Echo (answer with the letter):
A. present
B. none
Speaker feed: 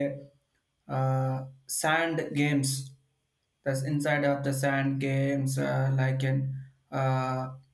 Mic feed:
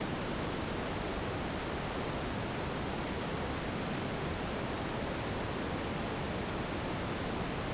B